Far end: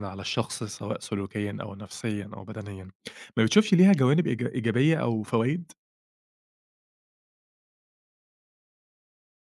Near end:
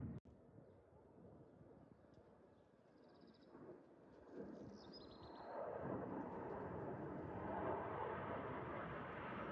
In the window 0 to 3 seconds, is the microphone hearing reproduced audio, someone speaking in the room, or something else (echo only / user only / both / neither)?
neither